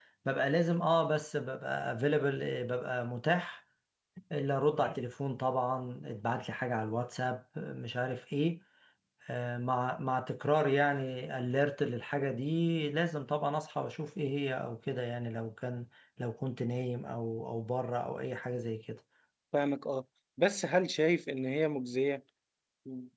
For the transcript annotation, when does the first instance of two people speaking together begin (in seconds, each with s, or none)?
none